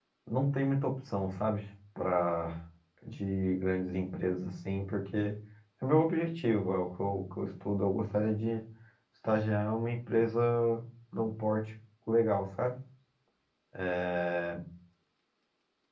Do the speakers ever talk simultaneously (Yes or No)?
No